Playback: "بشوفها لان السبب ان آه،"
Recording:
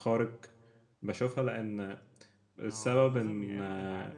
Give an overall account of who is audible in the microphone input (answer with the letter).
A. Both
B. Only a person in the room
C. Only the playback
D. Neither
A